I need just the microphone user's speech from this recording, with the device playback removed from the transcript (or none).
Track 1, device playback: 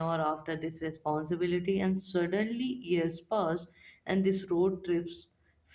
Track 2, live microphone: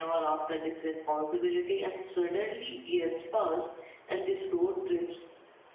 none